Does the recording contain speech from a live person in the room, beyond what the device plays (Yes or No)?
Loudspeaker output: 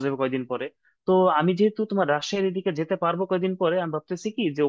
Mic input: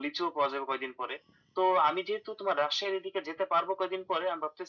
No